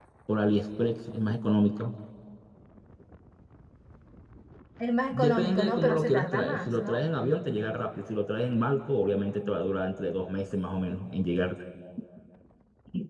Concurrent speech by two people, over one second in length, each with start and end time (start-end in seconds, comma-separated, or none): 5.1-7.0